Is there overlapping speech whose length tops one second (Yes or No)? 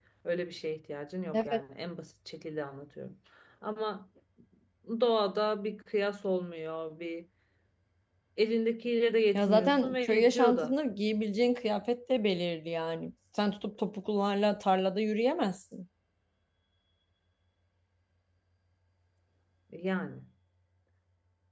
Yes